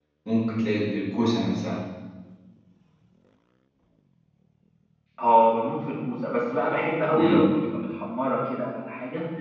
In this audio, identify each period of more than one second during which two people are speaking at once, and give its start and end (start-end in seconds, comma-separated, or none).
none